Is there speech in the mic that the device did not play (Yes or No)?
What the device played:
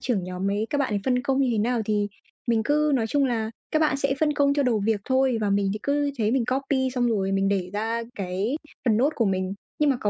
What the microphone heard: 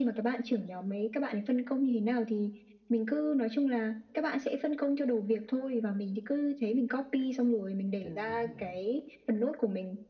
Yes